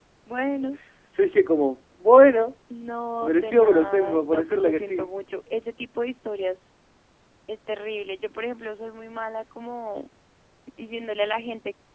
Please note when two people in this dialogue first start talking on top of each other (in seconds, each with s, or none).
3.2 s